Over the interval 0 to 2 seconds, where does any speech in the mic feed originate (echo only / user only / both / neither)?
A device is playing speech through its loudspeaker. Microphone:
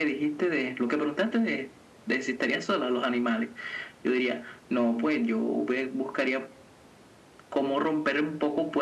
echo only